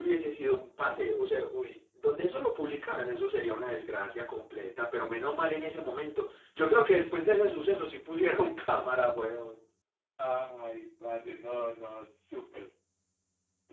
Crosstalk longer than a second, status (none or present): none